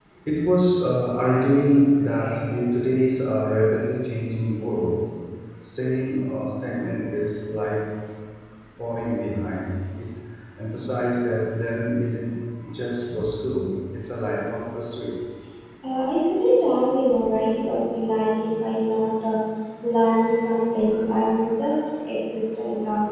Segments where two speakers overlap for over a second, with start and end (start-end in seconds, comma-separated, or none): none